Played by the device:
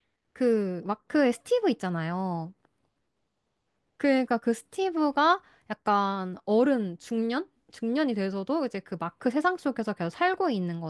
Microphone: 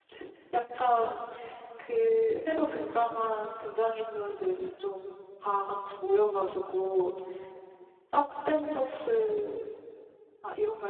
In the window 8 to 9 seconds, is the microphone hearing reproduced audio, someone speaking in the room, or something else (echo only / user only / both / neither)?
user only